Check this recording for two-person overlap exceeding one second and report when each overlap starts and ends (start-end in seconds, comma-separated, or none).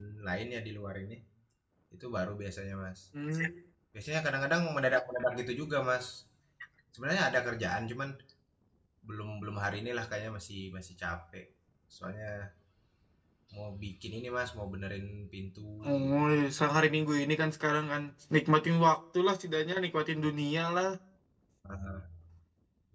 none